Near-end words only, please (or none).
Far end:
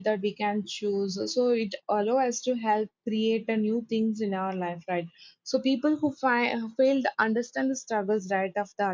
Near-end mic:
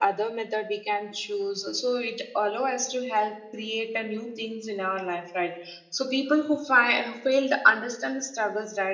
none